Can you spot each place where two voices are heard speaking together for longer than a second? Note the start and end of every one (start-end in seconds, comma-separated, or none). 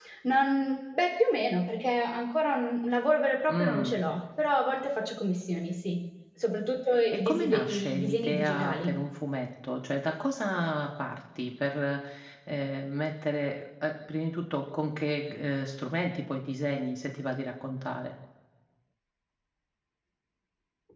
7.1-9.0